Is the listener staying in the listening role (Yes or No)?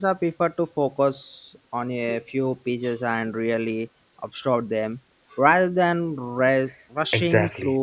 No